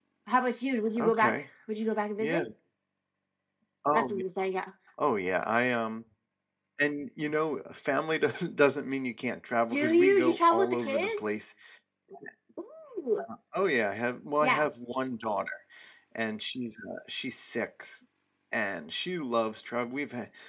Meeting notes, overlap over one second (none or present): present